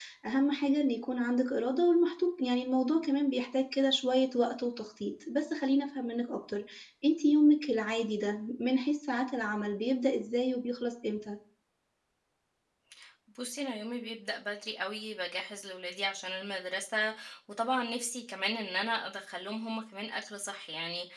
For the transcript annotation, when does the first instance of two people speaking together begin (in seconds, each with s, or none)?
none